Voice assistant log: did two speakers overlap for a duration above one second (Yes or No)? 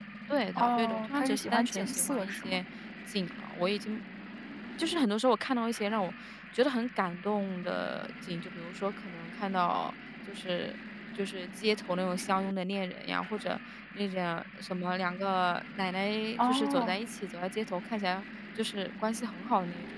Yes